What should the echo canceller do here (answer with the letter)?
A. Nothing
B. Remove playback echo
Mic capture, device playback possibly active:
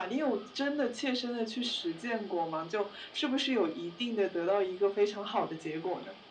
B